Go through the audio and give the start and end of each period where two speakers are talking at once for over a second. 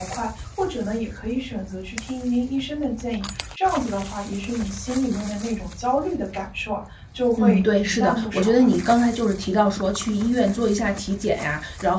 7.4-8.6

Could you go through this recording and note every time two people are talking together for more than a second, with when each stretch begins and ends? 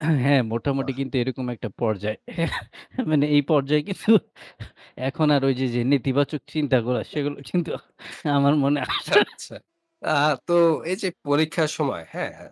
none

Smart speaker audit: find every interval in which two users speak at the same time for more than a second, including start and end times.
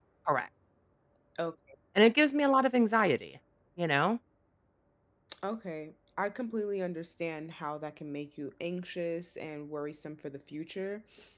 none

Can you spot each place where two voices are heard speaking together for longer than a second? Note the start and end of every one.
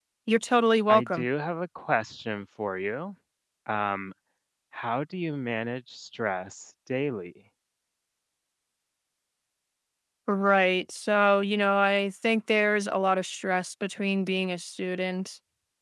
none

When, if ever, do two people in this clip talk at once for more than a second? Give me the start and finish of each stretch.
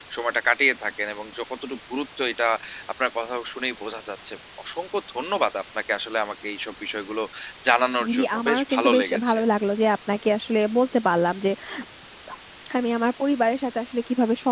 8.1-9.4

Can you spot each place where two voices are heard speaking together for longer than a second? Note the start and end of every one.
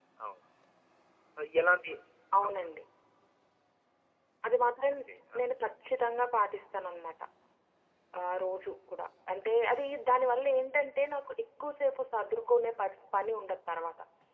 none

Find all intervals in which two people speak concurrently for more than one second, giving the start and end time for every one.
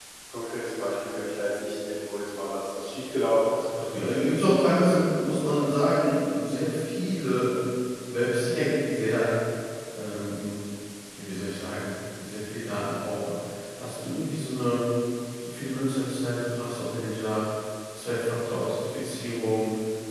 3.7-5.6

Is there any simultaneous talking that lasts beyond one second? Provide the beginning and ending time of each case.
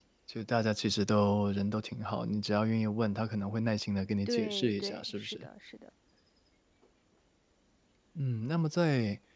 4.3-5.5

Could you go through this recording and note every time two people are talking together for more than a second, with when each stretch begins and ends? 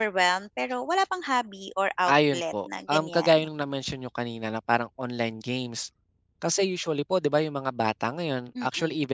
2.1-3.3

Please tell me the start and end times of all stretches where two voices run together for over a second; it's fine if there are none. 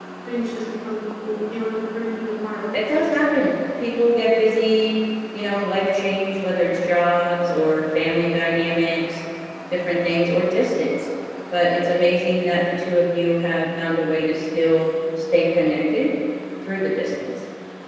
none

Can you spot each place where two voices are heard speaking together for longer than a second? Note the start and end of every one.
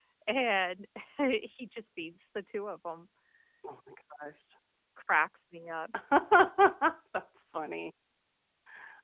none

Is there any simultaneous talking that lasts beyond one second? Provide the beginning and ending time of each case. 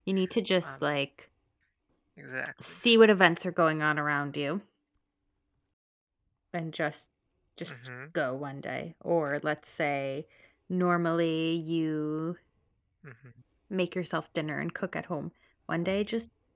none

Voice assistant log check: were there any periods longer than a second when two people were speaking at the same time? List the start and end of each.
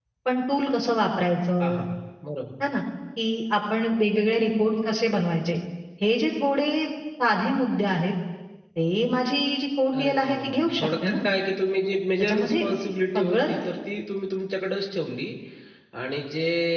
9.9-11.2

